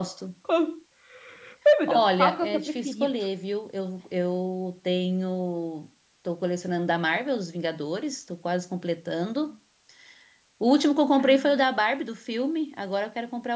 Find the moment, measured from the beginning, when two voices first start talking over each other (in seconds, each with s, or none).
1.9 s